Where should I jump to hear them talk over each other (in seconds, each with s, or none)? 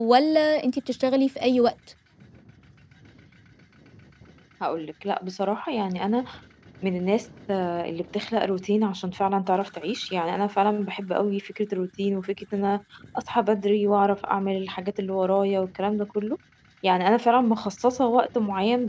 none